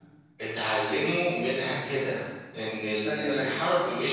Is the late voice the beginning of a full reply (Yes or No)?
No